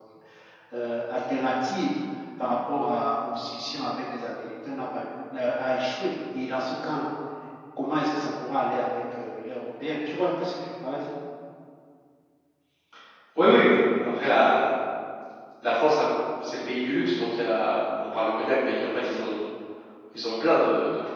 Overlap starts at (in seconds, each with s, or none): none